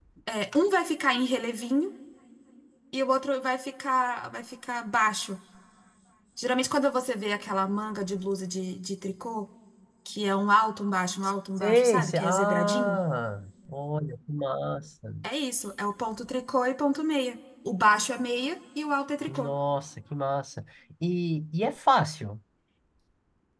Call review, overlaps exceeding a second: present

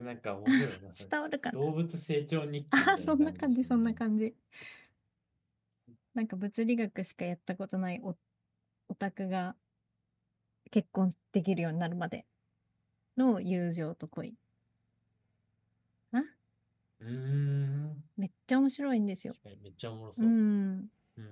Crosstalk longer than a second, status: present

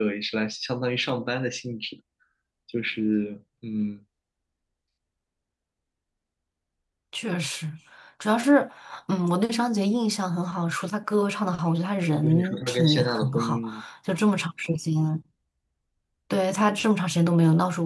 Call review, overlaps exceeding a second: present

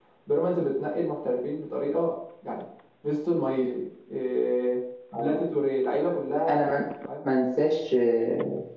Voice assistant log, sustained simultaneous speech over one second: none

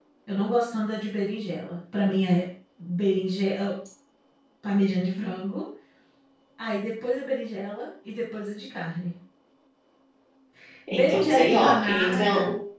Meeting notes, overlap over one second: present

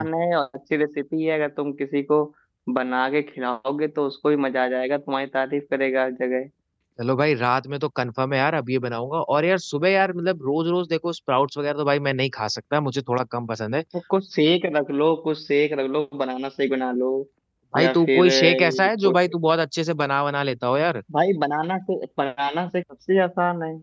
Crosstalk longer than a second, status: present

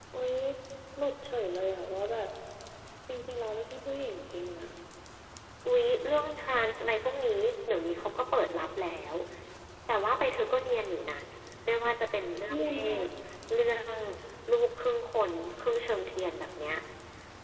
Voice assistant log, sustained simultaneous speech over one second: none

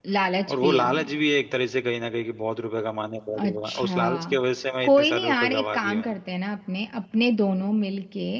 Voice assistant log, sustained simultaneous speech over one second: present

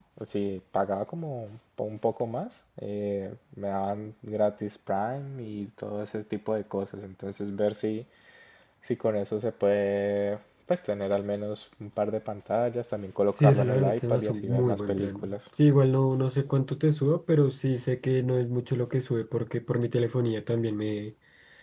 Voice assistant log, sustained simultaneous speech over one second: present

